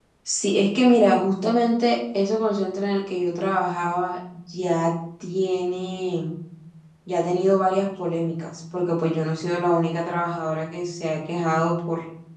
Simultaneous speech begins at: none

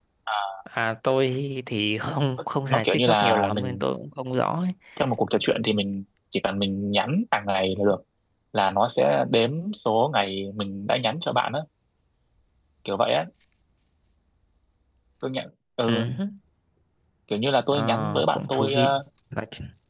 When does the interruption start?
2.6 s

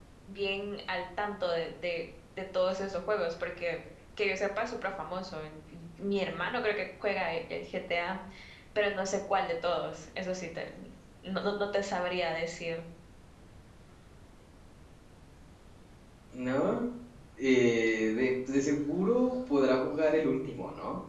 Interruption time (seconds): none

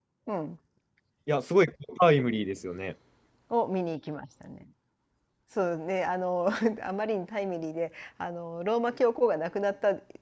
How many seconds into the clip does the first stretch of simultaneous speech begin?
none

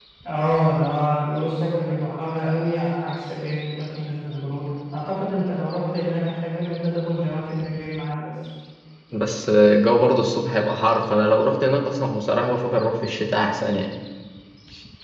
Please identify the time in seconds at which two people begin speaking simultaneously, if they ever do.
none

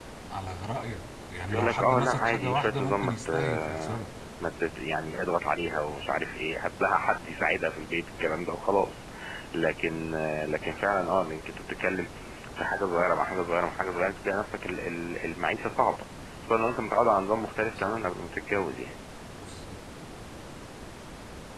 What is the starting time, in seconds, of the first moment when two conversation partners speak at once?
1.5 s

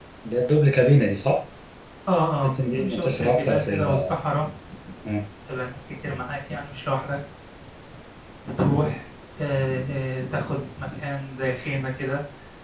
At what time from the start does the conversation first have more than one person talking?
2.4 s

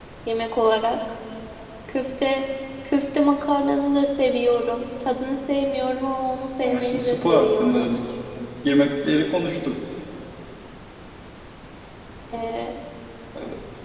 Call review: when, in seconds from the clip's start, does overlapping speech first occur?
6.6 s

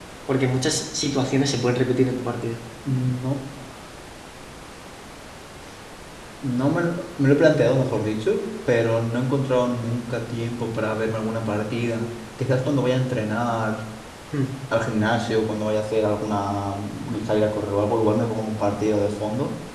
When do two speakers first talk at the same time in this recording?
none

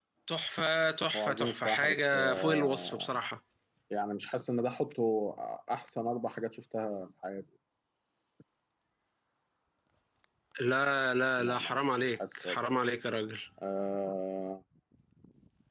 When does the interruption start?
1.1 s

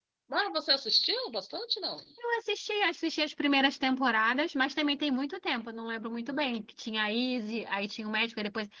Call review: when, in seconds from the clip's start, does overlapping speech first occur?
none

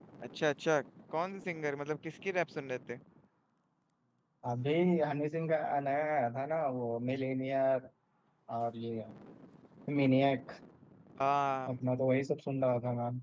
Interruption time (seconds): none

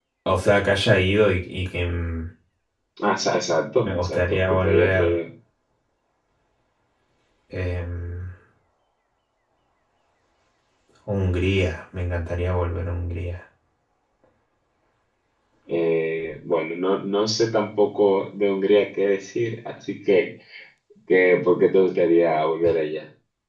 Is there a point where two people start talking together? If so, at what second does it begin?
3.8 s

